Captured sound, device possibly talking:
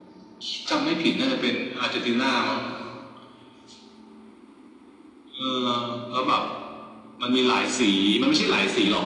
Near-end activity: none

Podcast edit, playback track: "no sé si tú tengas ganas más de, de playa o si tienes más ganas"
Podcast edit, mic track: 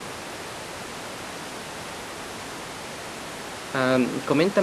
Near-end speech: present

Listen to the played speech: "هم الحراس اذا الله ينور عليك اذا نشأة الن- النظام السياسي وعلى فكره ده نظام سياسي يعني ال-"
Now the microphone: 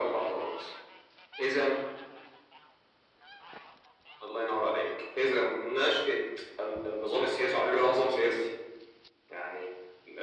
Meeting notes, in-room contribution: none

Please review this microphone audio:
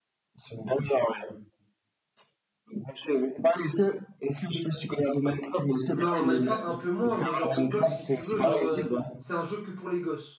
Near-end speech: present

